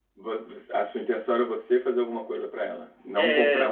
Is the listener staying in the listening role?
Yes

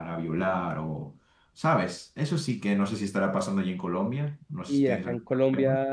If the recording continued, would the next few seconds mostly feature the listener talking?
Yes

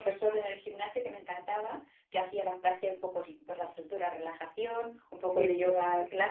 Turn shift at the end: No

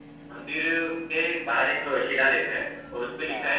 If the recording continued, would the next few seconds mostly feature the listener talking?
No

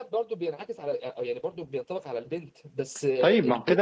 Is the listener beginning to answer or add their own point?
Yes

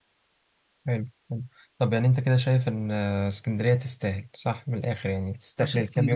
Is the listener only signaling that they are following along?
No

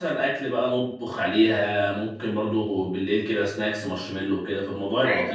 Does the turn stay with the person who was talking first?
No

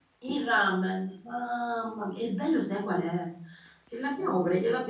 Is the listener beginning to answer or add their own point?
No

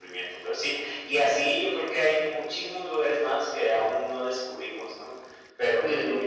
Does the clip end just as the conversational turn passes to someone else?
No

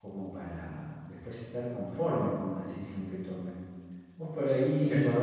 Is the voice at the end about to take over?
No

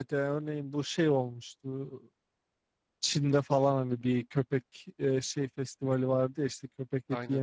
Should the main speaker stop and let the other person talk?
No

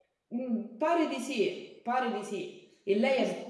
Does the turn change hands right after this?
No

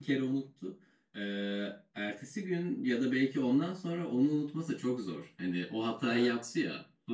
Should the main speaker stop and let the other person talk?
No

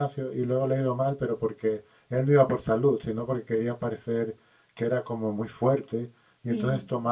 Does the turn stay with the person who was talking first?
Yes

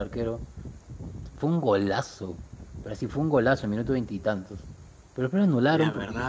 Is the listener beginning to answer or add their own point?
No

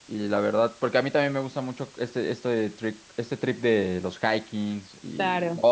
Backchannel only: Yes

